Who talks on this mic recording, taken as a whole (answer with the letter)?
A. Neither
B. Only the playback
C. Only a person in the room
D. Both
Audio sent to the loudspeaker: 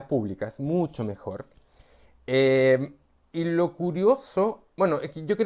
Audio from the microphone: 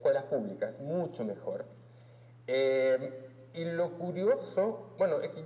B